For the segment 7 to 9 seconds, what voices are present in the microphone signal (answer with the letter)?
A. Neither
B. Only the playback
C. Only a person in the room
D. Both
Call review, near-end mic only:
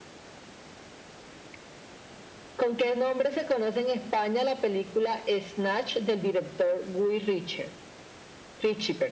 B